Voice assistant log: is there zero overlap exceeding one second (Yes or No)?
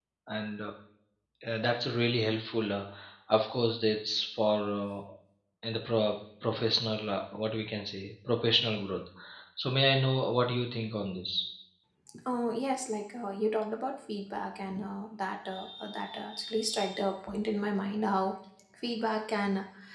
Yes